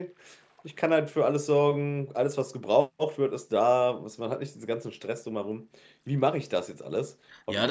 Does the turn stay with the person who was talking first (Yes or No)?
No